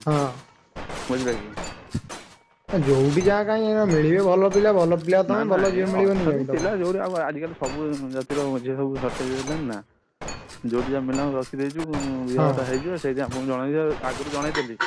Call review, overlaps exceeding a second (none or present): present